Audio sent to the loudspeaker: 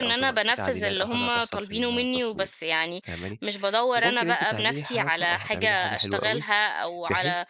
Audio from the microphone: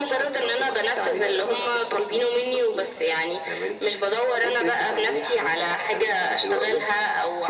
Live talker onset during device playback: none

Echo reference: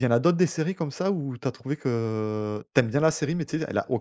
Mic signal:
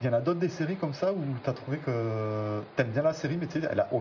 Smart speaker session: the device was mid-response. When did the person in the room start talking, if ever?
none

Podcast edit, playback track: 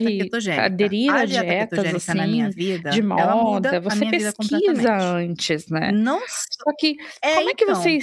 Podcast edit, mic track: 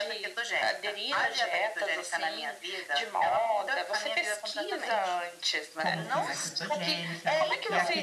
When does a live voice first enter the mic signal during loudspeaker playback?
5.8 s

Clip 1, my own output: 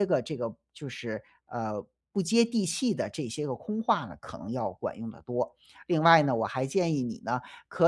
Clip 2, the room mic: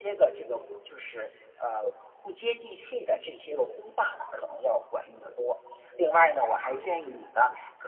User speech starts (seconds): none

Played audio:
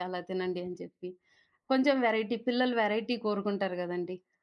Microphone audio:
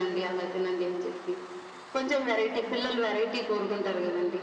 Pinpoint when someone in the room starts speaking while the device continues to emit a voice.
none

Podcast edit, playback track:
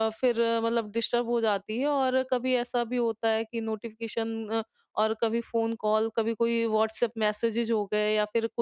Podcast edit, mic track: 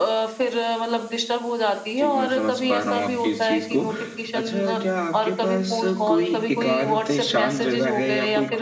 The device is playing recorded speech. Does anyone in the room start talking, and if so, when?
2.0 s

